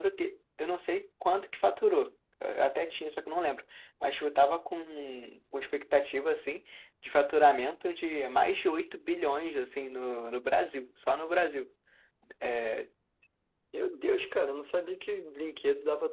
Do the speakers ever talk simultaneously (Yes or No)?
No